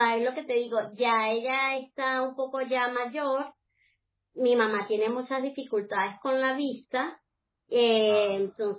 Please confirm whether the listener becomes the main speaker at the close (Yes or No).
No